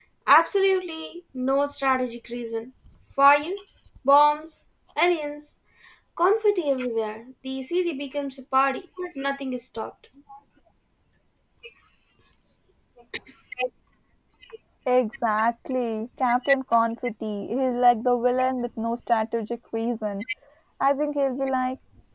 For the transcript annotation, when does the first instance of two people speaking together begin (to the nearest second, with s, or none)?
none